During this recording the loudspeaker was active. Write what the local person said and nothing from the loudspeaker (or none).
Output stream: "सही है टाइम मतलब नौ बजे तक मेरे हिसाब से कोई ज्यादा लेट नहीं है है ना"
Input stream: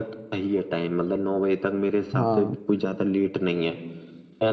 हाँ